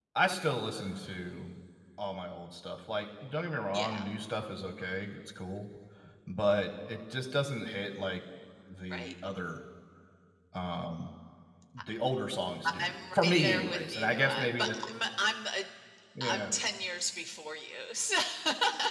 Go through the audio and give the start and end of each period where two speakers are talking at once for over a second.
12.8-14.8

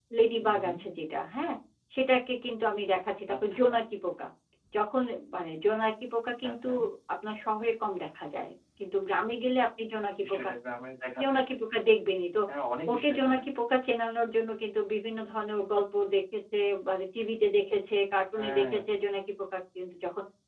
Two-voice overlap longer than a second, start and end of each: none

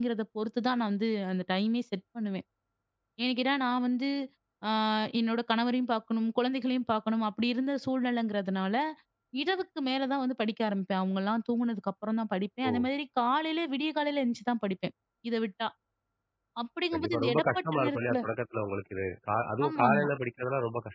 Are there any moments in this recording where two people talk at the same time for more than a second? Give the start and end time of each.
16.9-18.2

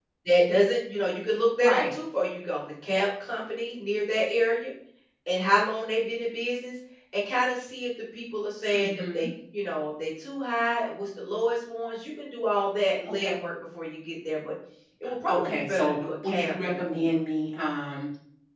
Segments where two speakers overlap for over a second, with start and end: 15.3-17.0

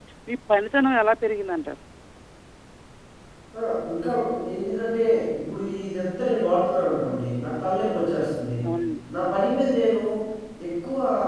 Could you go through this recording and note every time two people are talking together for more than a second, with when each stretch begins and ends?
none

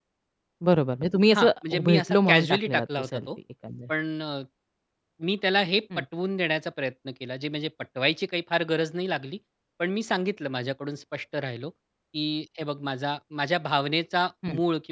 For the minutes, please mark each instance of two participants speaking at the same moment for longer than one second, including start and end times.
1.3-3.2

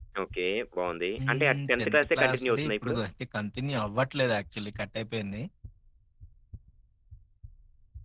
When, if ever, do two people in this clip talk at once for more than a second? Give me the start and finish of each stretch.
1.3-3.0

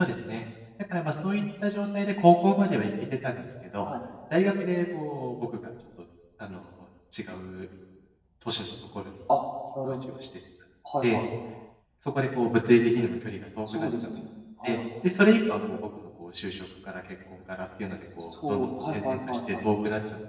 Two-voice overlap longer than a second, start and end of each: 18.3-19.6

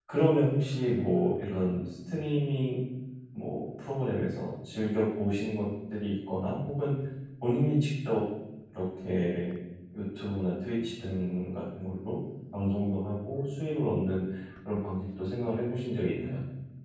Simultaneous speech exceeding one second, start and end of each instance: none

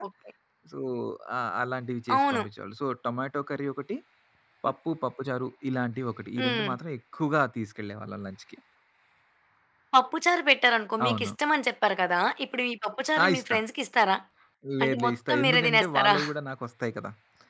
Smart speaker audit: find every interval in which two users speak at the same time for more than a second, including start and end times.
14.8-16.1

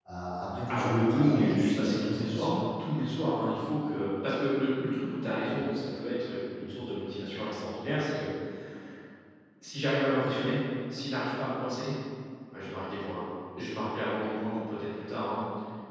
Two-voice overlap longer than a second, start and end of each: 0.7-2.6

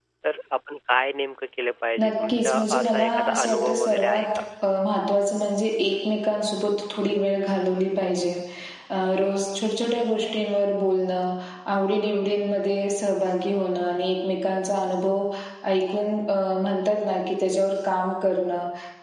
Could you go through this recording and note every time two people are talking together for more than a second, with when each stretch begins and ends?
2.0-4.2

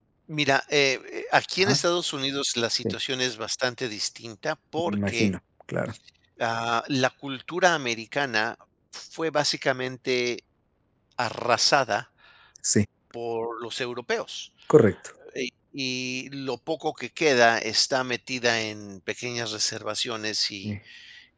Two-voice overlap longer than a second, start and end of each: none

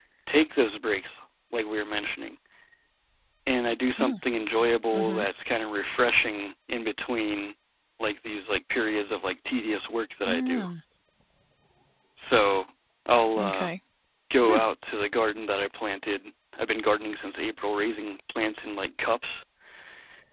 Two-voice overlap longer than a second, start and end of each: none

